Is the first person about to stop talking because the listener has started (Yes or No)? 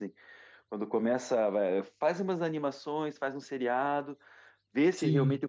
No